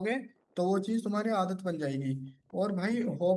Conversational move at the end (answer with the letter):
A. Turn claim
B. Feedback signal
B